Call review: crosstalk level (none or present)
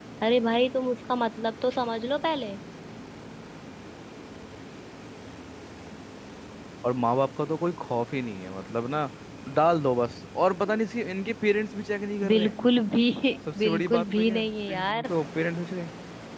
present